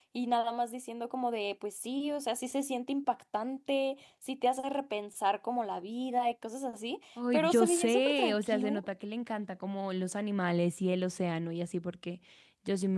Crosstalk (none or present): present